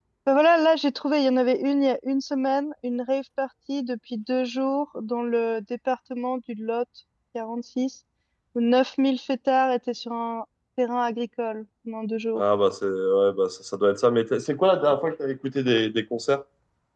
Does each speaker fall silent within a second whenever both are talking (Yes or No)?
Yes